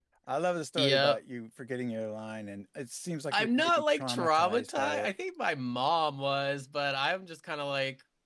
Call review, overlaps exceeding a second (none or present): present